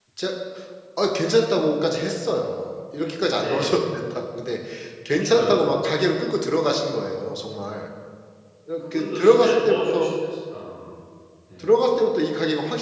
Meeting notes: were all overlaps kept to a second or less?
No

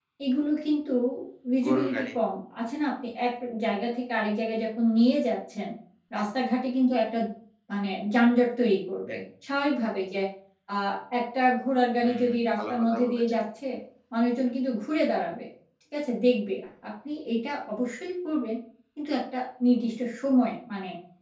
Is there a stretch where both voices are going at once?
Yes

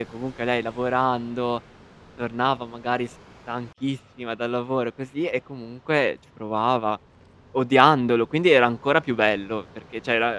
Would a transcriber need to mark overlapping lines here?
No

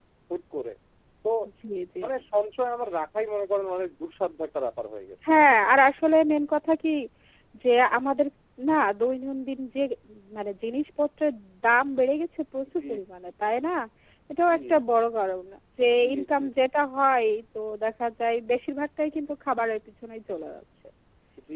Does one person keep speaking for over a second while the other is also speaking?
No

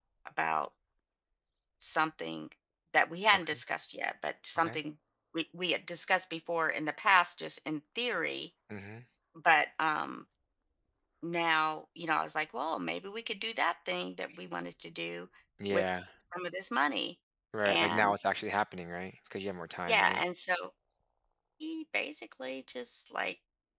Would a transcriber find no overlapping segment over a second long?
Yes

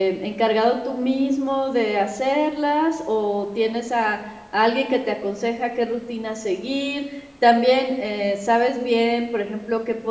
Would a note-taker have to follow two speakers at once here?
No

